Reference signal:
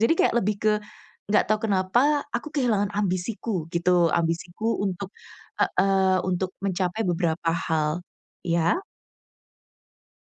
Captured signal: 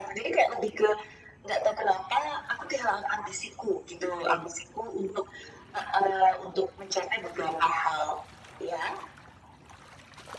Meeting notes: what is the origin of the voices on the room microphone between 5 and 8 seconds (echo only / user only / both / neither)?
echo only